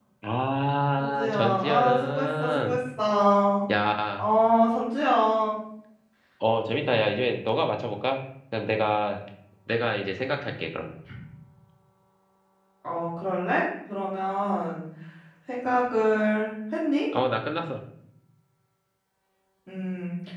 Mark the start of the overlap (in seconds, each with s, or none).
1.0 s